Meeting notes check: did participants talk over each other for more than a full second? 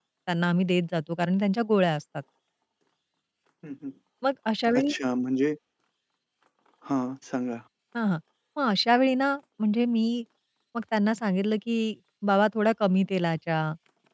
No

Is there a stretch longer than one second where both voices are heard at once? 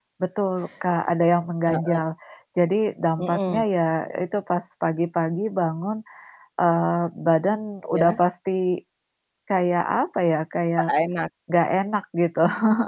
No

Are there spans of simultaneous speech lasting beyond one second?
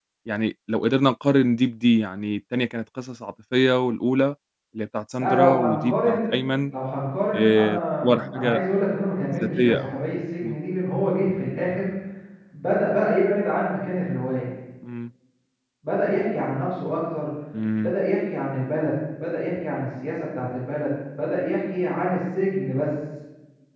Yes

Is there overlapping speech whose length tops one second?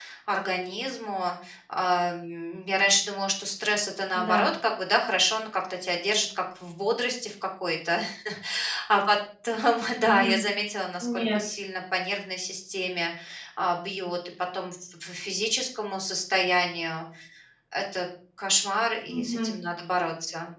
No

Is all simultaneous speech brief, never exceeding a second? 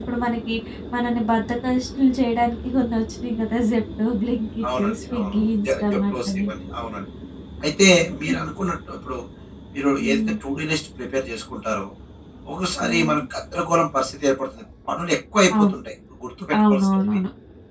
No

